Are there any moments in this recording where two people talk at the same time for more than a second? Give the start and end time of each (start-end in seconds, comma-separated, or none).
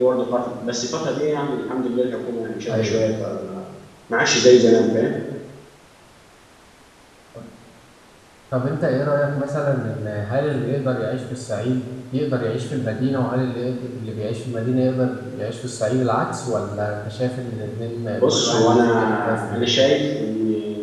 18.1-19.9